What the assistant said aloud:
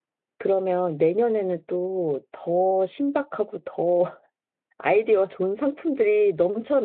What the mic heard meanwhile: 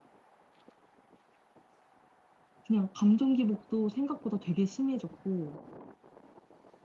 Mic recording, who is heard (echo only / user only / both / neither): user only